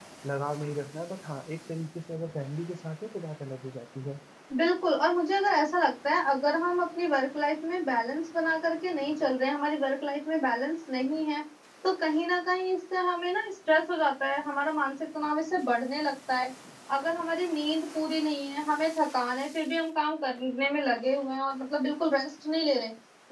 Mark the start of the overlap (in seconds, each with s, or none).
none